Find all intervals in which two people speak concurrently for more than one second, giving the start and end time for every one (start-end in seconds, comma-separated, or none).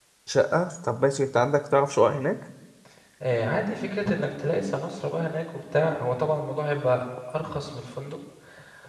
none